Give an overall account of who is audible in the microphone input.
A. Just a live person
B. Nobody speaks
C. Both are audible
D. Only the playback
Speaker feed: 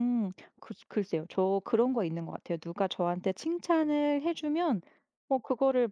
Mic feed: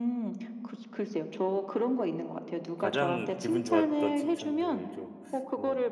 C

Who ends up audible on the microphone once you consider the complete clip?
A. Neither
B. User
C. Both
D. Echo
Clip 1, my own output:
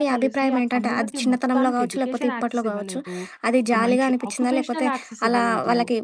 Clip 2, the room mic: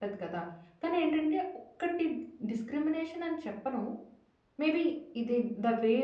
B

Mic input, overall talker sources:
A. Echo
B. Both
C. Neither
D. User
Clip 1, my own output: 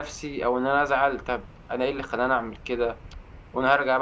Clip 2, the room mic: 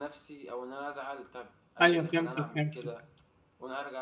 B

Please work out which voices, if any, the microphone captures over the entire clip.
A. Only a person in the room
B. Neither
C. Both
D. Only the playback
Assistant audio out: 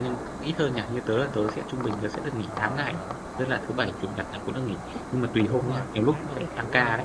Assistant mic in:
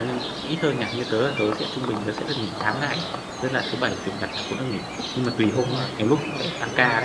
D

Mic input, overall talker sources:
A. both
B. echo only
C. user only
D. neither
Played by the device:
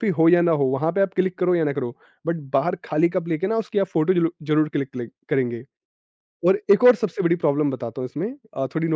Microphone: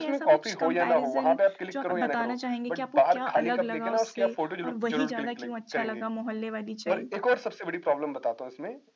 A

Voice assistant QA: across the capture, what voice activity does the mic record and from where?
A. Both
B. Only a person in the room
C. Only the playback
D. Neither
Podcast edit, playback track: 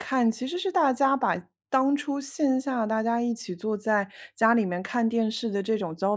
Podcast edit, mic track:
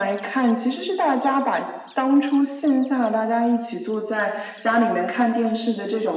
C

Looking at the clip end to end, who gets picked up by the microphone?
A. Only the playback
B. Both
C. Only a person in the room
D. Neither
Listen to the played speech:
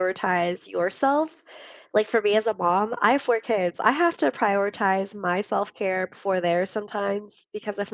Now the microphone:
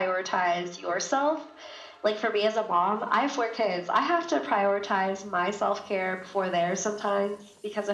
A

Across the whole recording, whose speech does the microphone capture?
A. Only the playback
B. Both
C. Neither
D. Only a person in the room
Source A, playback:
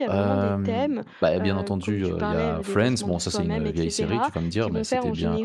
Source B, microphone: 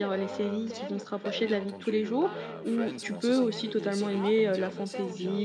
B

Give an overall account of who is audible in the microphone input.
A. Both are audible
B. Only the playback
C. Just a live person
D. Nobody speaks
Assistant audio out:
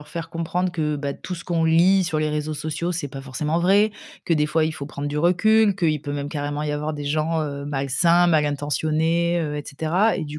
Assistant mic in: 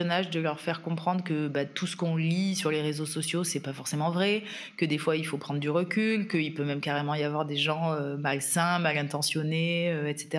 B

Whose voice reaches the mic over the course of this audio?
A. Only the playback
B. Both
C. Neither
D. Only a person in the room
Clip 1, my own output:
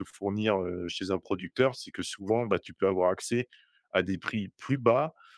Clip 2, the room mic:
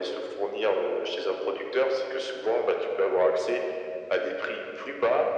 A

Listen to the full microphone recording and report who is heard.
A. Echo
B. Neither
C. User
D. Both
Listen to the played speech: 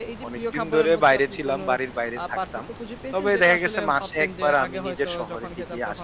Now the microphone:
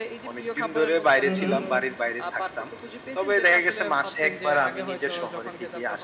D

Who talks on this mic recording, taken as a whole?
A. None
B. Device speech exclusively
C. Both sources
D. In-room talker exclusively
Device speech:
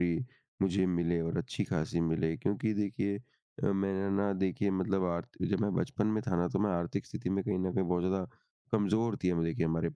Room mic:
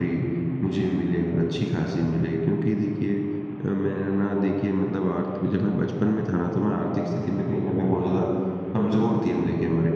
B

